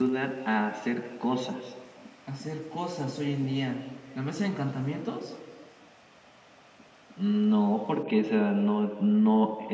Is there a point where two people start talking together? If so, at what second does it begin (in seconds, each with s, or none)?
none